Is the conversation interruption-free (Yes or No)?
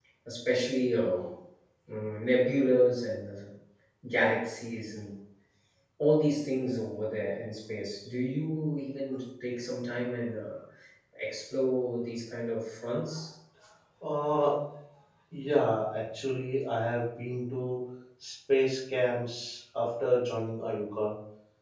Yes